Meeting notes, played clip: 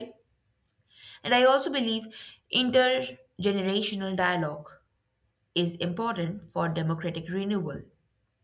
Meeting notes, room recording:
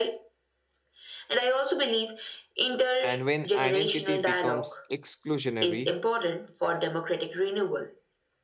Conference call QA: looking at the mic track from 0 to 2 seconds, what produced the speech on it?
echo only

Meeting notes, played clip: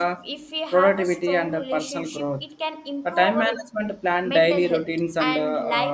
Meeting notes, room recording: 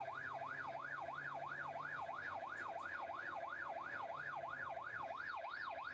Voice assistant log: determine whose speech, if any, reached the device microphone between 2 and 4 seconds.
neither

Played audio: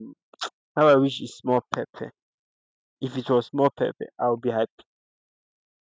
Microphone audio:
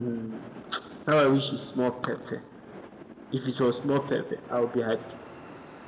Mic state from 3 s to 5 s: echo only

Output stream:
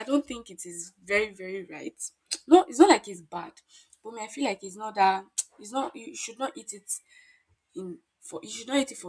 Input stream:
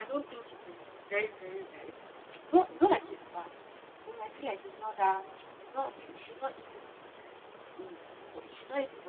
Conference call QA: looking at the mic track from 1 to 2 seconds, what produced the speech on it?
echo only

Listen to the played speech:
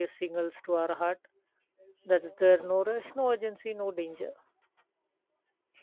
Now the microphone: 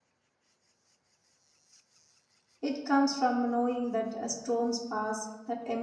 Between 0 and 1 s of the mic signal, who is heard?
neither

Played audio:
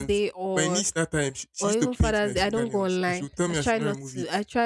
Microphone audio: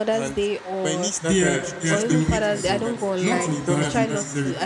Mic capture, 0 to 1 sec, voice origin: echo only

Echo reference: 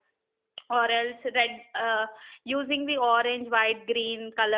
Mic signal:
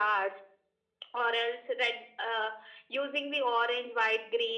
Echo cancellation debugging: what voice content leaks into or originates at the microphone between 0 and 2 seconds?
echo only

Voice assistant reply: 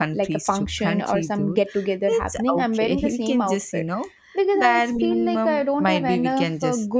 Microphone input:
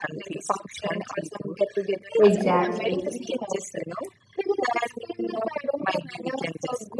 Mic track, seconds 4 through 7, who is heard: echo only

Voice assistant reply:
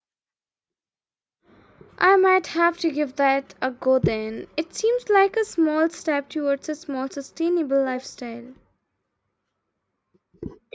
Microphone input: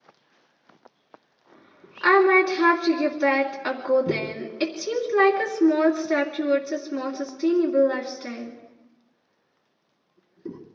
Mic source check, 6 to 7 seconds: echo only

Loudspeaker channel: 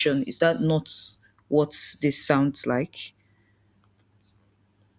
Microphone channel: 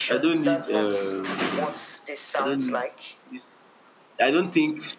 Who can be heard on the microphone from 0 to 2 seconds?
both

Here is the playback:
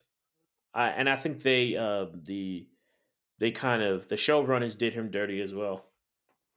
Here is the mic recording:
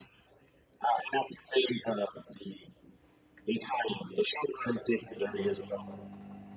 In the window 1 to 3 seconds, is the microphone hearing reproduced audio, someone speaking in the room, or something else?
echo only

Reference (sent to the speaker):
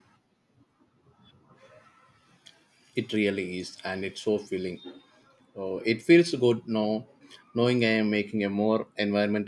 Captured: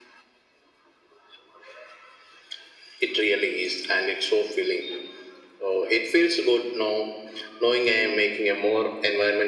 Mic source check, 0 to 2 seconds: neither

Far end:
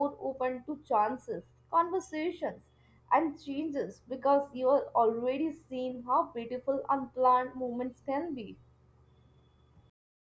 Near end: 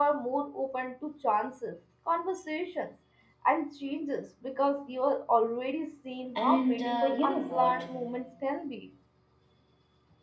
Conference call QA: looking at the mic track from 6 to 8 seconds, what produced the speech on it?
both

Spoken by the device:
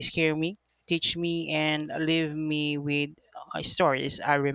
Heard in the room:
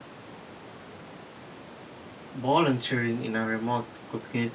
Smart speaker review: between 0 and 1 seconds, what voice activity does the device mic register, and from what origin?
neither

